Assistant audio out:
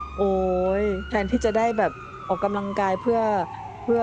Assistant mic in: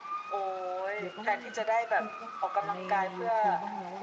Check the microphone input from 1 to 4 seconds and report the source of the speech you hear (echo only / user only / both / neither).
both